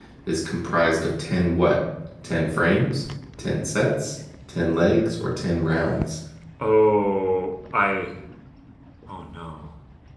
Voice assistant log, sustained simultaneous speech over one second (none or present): none